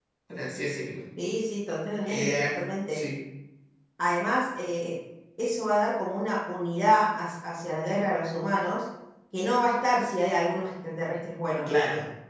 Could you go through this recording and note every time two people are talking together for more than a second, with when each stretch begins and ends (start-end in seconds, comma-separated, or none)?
none